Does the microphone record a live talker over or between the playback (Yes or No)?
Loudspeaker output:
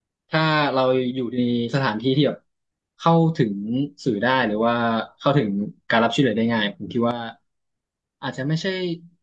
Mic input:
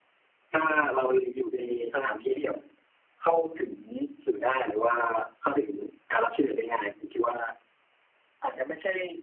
No